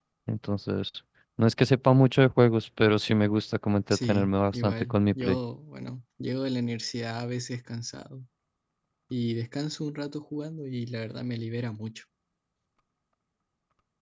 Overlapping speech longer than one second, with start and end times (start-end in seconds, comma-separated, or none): 3.9-5.4